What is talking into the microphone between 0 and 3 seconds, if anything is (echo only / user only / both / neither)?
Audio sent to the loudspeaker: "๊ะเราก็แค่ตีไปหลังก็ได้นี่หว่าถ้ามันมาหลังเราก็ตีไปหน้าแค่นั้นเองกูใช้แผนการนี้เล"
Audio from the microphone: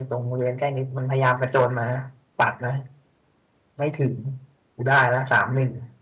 user only